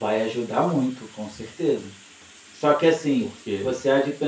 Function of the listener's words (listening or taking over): listening